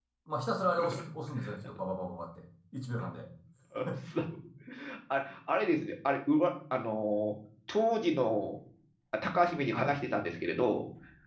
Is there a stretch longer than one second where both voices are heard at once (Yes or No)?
No